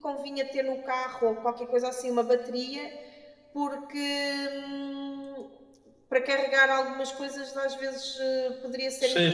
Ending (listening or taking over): taking over